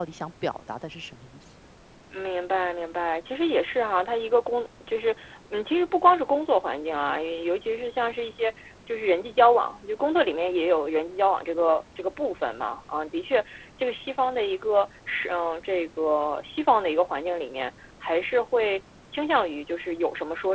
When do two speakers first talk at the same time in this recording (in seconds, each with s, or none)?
none